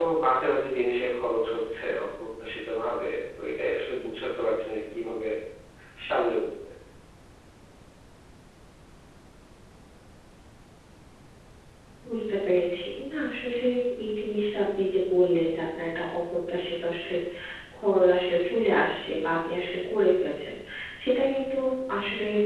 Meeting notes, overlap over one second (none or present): none